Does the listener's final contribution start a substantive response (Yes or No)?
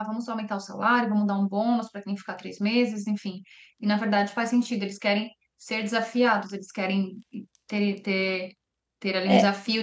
No